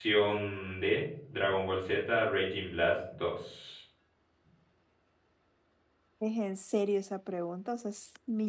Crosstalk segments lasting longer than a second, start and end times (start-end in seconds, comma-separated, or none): none